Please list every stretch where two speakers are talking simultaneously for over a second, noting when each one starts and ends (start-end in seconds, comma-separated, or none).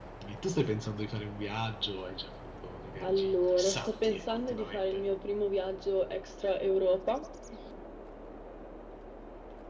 3.0-5.0